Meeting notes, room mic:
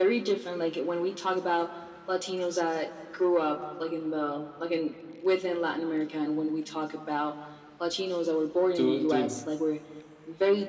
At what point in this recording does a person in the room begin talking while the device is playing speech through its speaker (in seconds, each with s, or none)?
8.7 s